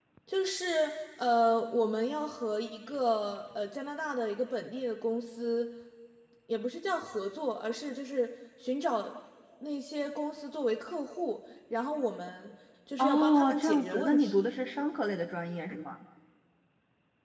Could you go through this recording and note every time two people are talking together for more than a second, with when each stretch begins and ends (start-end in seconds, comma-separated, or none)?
13.0-14.5